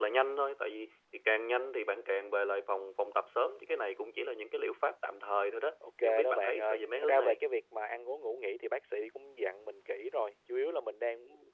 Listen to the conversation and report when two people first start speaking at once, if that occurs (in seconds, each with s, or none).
6.0 s